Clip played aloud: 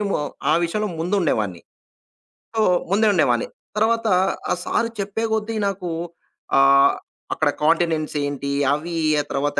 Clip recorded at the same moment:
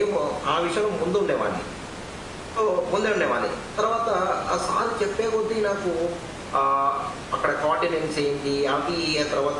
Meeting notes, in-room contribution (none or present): none